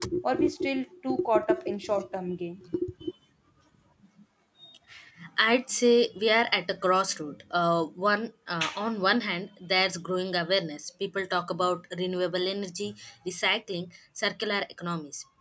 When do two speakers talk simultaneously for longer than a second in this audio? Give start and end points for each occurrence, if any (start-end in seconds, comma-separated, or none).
none